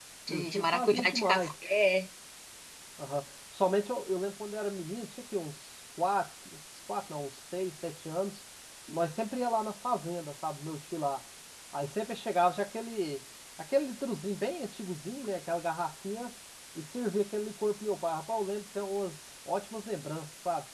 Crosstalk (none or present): present